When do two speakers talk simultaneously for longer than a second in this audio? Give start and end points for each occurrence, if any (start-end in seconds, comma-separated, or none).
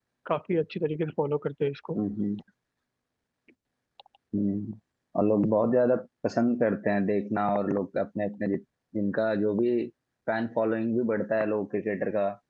none